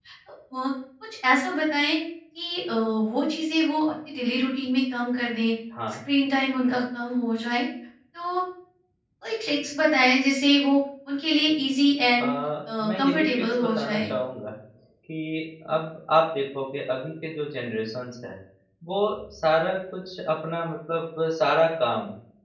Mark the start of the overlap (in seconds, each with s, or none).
12.9 s